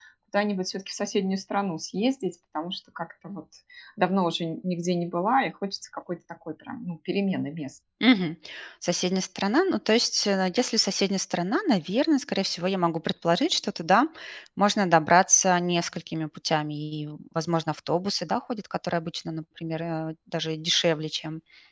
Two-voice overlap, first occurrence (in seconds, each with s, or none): none